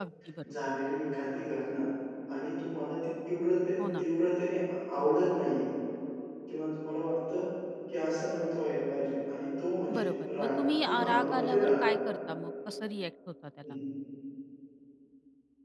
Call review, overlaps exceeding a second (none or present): present